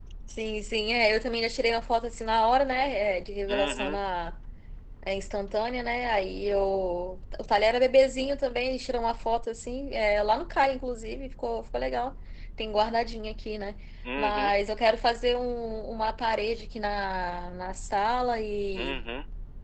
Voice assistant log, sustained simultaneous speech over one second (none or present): none